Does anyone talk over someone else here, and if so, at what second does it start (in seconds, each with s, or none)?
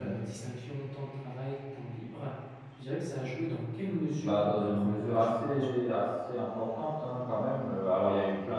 4.2 s